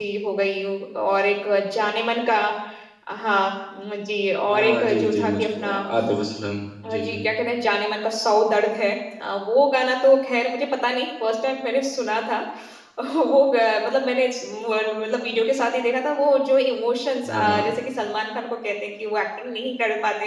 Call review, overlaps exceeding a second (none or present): present